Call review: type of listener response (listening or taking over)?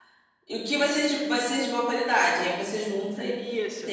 taking over